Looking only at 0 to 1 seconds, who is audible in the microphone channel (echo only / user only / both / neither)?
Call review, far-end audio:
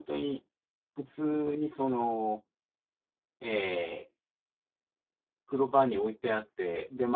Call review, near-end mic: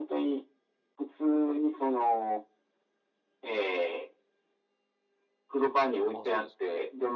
echo only